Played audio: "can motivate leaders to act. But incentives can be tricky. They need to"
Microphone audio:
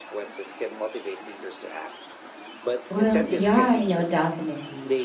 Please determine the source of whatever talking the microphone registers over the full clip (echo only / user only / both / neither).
both